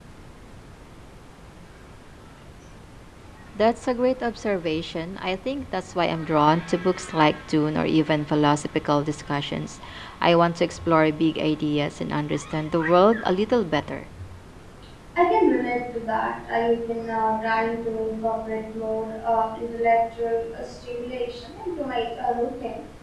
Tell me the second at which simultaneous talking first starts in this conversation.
none

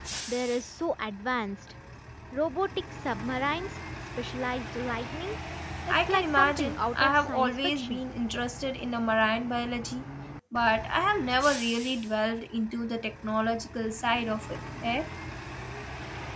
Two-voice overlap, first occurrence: 5.9 s

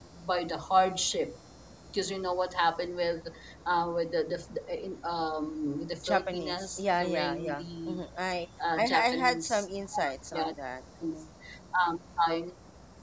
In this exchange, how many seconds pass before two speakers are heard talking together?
6.0 s

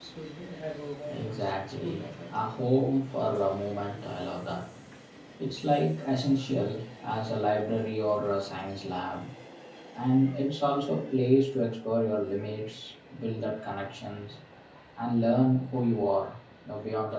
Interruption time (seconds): 1.1 s

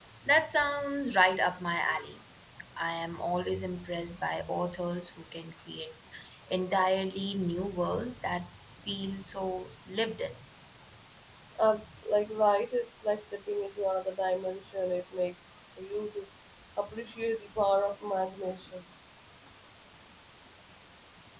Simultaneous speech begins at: none

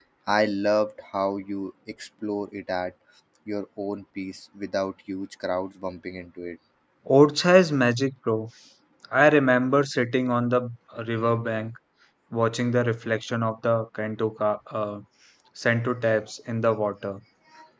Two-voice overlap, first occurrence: none

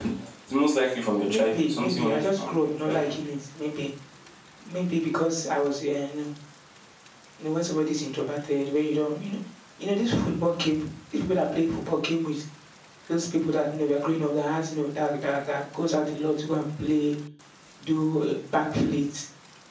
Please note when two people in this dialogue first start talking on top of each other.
1.2 s

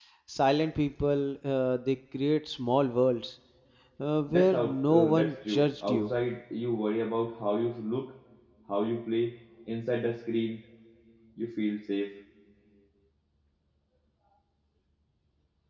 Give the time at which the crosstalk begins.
4.3 s

